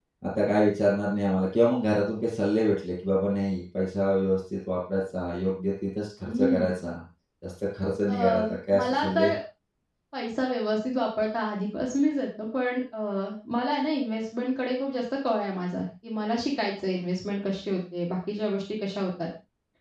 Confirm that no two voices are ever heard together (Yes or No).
No